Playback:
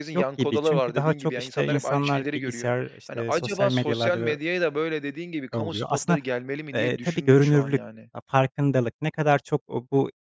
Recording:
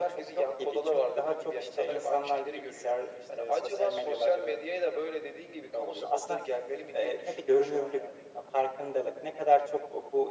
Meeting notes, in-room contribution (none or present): none